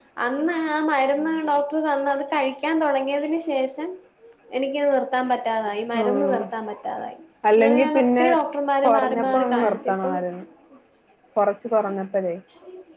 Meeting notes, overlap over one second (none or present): present